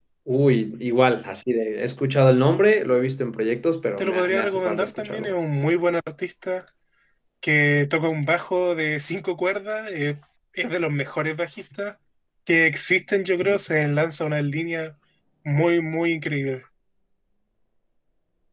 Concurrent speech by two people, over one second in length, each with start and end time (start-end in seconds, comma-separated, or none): 4.0-5.3